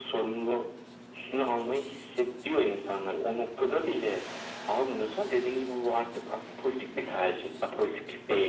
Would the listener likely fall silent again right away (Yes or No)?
No